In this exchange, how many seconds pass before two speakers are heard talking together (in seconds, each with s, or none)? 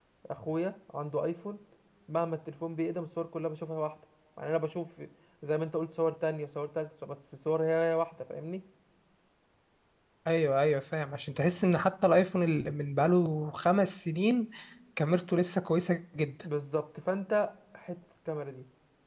none